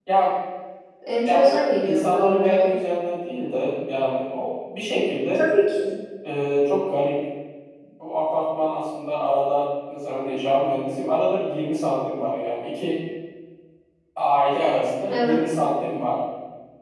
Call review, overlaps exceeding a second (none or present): present